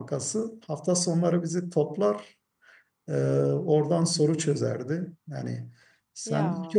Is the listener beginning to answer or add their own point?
No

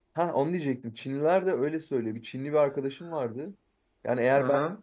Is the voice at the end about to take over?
No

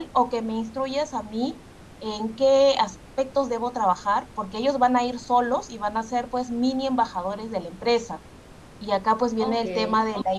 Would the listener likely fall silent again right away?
Yes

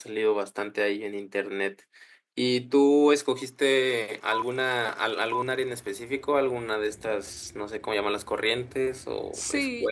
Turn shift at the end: Yes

